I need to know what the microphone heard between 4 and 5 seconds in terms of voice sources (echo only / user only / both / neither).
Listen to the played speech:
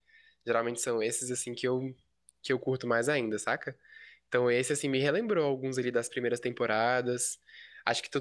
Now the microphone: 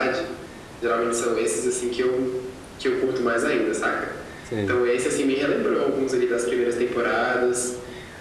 both